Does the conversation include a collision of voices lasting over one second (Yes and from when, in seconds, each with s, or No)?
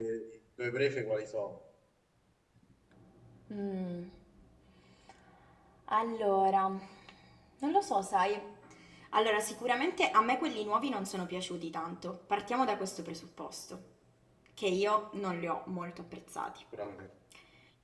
No